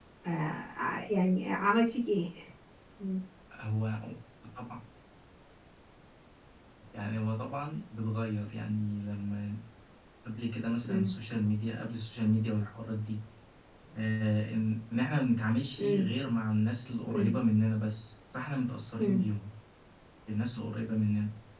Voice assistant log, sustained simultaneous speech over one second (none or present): none